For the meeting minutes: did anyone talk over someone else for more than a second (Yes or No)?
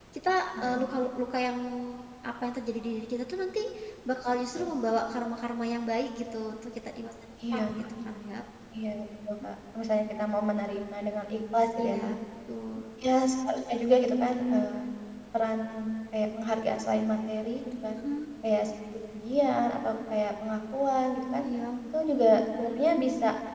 No